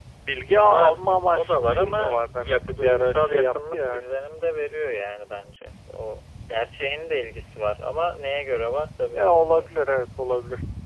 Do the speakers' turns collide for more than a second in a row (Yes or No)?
Yes